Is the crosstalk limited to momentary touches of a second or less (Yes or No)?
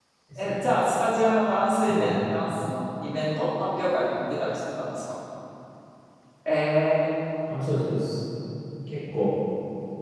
Yes